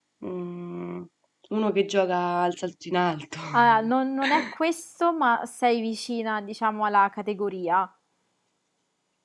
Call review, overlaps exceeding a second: none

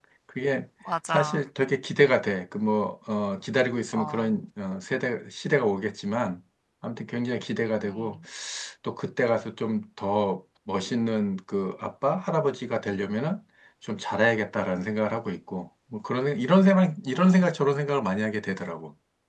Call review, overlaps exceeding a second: none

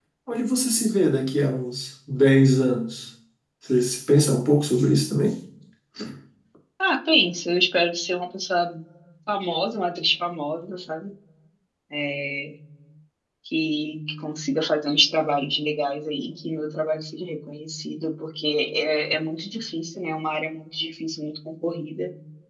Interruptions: none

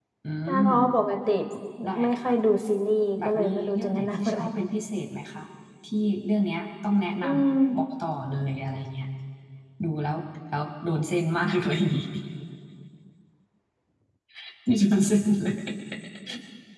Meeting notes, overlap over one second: present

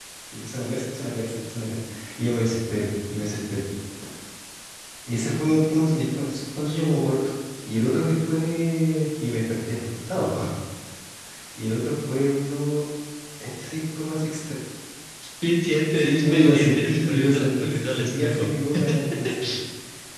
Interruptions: present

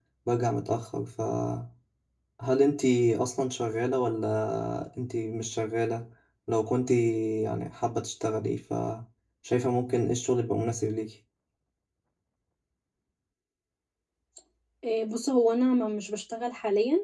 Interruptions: none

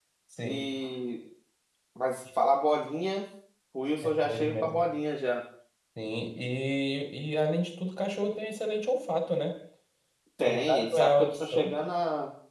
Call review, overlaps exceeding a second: present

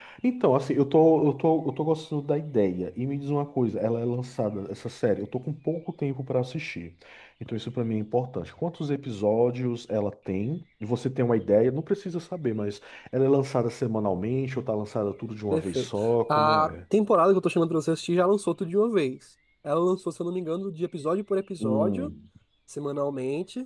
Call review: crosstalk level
present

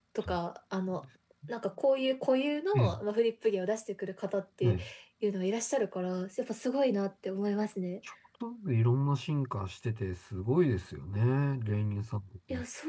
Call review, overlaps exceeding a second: none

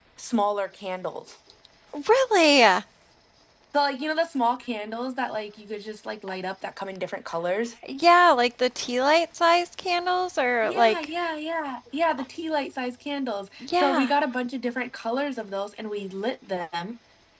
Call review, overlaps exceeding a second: none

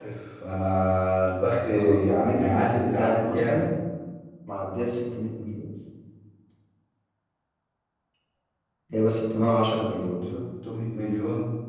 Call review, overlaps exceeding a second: present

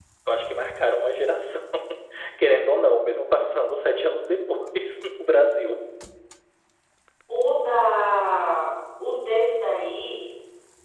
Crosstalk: none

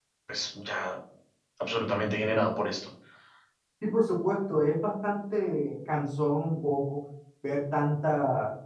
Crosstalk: none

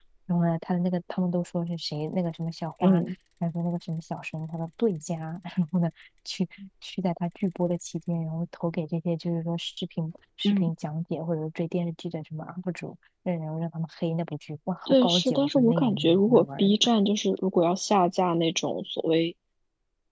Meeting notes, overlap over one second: present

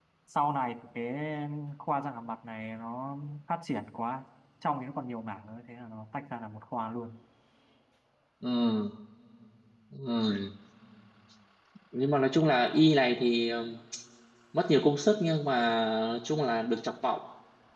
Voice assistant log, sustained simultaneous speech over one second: none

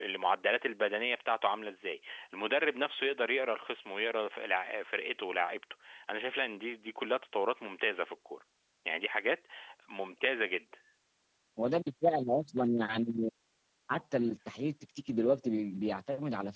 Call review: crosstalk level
none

